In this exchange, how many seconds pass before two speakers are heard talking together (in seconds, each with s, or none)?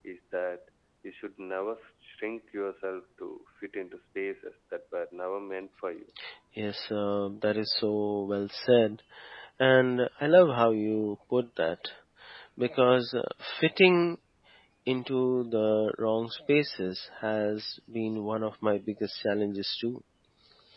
none